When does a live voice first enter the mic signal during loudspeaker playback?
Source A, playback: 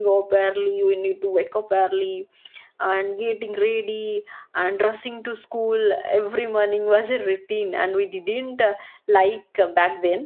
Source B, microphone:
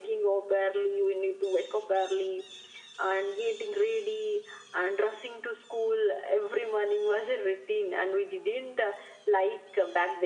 none

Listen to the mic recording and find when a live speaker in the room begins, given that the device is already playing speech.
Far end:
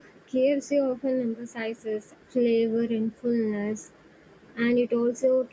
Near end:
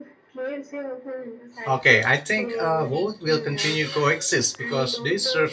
1.6 s

